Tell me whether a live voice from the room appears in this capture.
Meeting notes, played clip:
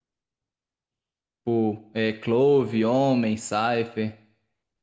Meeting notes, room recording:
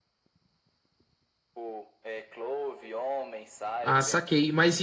Yes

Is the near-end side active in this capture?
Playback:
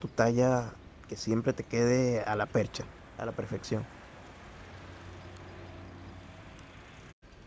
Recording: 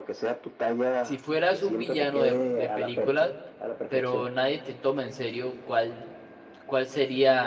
Yes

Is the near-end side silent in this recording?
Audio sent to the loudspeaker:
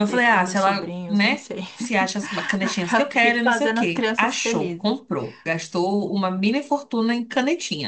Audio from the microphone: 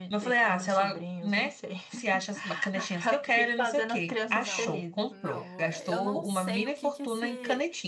No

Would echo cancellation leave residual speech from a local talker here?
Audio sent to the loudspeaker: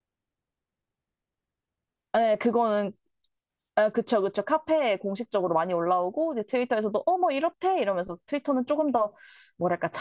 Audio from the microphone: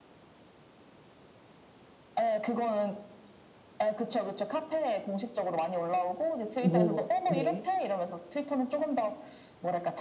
Yes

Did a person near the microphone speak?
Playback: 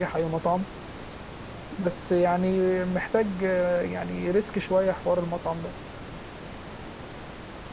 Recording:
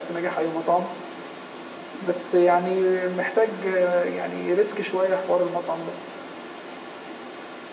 No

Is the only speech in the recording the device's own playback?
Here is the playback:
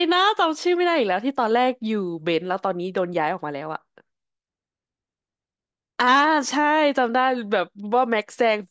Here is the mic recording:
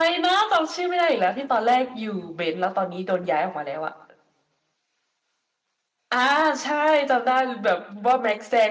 Yes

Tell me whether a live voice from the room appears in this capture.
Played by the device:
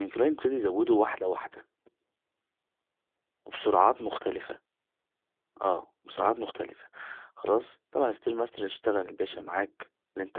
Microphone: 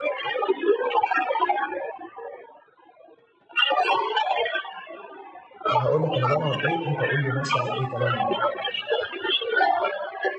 Yes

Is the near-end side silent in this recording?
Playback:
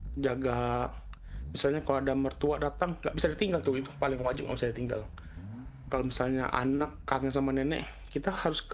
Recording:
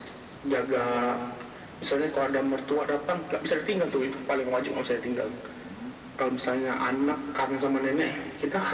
Yes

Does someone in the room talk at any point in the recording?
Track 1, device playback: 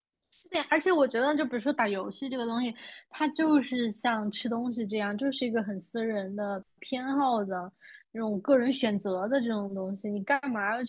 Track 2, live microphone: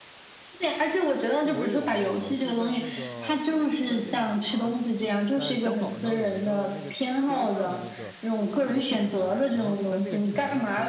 Yes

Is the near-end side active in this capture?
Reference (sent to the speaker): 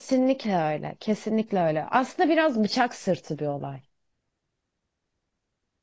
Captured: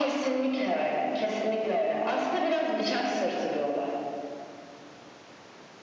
No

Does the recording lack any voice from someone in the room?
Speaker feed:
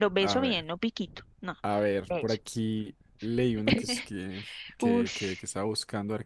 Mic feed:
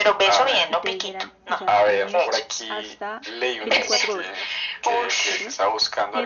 No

